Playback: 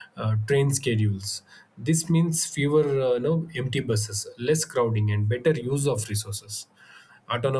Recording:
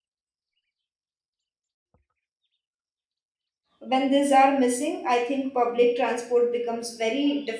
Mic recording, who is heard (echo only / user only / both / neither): user only